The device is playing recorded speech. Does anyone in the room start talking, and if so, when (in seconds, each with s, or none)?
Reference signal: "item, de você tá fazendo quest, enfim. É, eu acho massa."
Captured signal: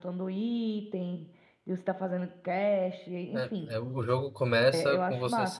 3.3 s